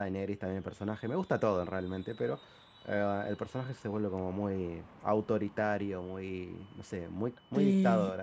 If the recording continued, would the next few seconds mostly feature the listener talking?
Yes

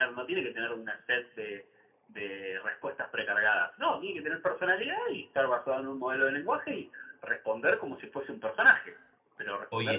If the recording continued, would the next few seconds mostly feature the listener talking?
No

